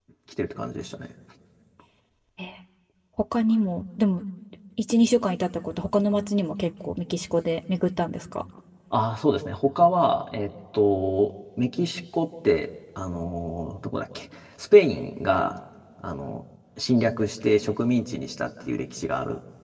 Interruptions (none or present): none